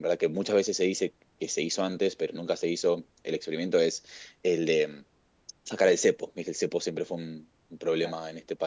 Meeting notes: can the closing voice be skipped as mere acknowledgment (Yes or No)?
Yes